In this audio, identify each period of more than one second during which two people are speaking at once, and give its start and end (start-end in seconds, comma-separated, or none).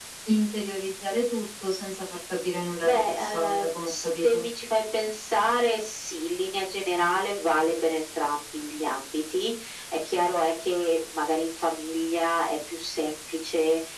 2.8-4.4